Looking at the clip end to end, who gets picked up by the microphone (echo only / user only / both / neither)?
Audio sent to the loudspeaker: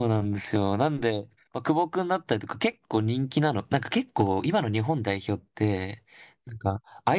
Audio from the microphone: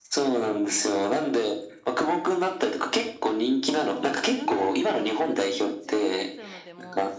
both